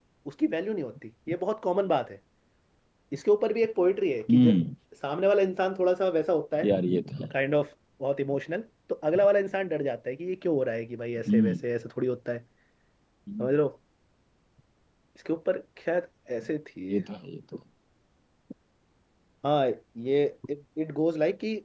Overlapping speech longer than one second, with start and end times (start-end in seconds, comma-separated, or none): none